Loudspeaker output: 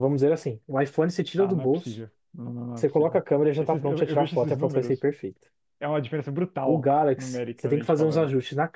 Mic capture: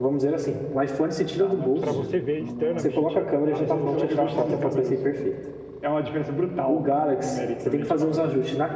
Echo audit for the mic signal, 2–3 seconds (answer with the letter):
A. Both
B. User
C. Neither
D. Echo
A